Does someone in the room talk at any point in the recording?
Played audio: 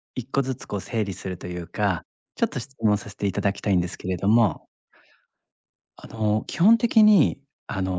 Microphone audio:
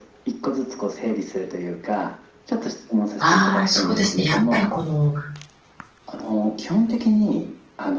Yes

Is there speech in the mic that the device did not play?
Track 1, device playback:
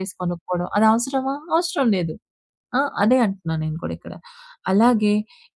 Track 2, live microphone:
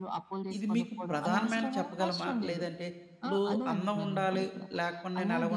Yes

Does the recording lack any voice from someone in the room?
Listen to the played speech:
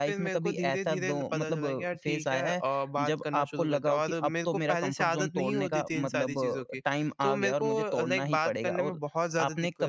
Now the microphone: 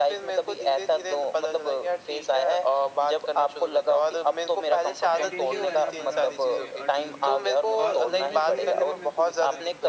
No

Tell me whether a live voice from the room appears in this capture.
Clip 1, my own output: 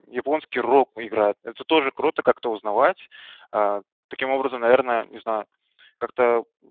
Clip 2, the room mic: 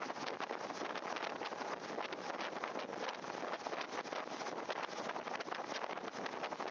No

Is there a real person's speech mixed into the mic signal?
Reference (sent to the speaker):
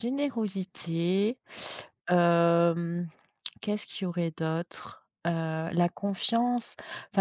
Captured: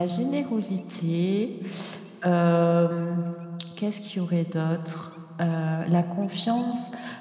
No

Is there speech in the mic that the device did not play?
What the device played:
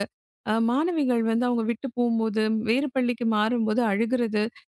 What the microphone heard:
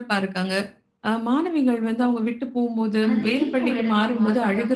Yes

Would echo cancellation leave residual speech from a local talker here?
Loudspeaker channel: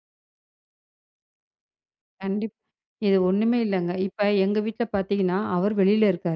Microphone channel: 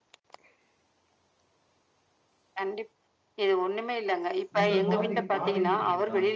Yes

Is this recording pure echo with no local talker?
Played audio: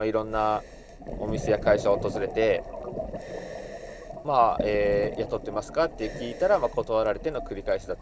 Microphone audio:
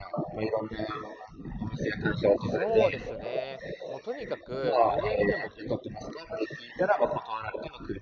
No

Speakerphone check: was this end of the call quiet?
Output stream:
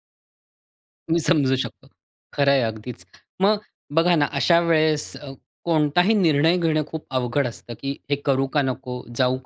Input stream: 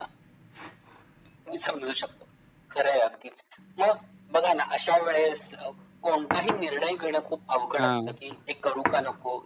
No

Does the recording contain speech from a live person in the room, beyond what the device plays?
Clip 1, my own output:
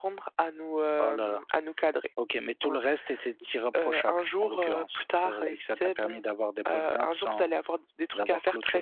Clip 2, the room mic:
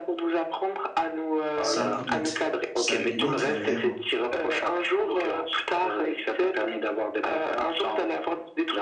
Yes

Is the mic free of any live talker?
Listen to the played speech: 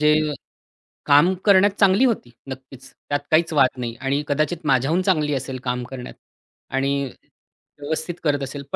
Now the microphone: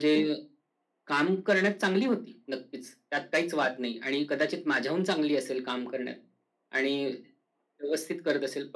Yes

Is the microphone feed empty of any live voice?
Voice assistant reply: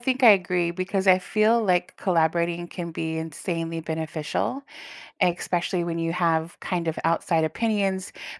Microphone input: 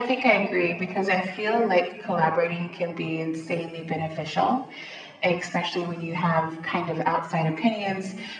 Yes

